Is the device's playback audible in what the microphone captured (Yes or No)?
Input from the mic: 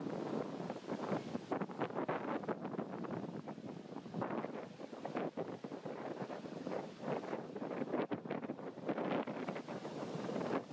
No